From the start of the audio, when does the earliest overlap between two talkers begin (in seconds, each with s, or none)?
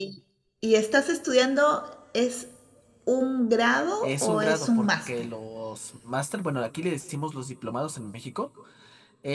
4.0 s